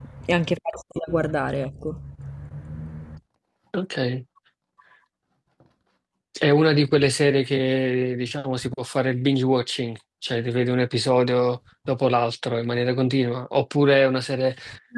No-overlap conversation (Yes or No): Yes